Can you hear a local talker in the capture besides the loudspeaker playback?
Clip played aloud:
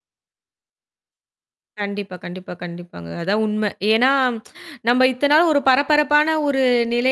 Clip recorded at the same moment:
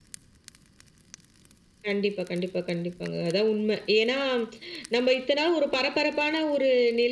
No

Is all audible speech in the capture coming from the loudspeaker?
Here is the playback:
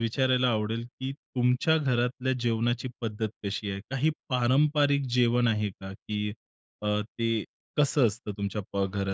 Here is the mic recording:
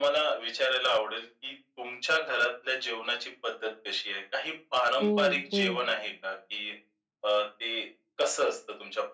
No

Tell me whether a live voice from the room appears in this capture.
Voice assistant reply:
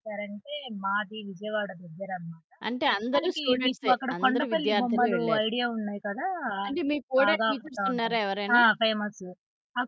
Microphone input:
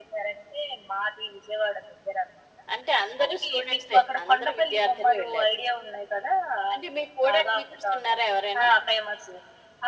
No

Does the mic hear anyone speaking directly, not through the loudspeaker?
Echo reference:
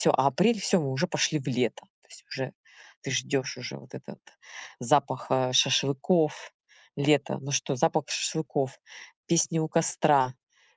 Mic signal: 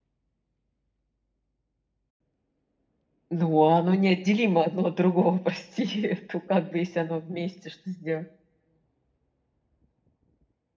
Yes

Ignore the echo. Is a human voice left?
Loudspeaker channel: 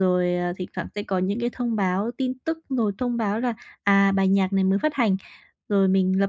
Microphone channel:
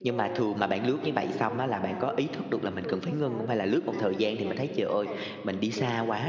Yes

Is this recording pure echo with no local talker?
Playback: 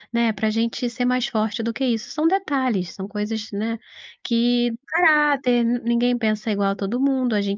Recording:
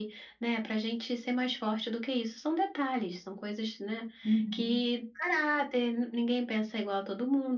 No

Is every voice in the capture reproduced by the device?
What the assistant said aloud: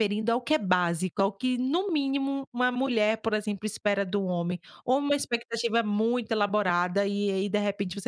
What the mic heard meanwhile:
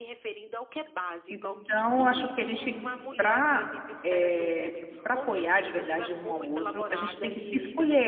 No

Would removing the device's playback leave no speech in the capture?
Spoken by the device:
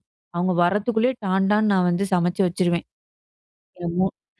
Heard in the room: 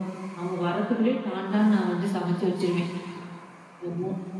Yes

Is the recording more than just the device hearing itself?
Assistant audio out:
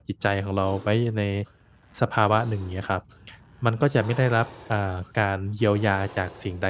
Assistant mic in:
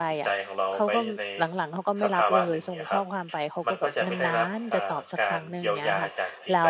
Yes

